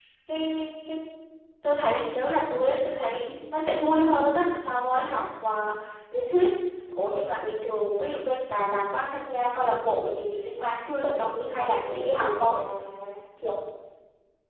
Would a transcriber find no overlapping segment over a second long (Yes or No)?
No